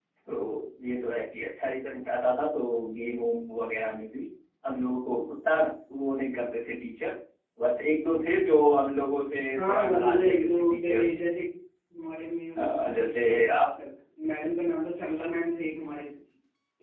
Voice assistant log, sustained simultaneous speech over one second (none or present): present